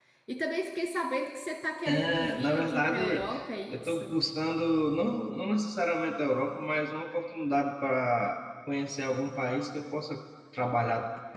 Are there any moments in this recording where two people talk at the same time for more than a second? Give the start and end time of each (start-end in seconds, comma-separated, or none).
1.9-3.3